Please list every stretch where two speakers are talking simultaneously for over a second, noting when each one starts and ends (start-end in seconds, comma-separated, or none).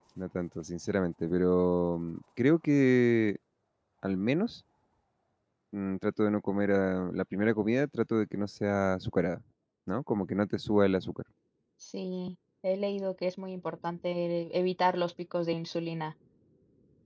none